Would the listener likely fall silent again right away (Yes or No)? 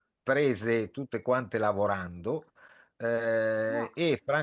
Yes